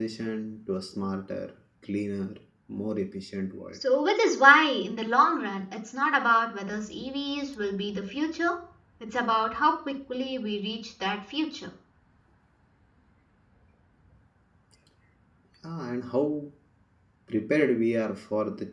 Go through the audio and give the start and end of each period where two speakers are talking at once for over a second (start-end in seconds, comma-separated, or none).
none